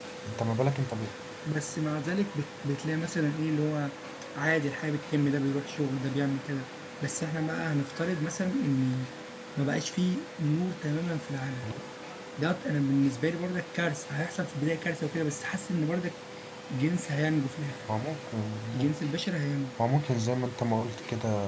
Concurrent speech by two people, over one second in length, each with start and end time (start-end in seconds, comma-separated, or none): none